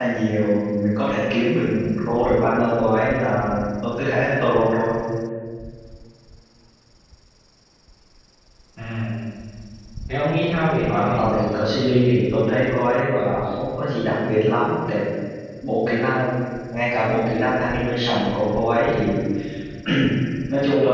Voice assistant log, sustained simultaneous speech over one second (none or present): present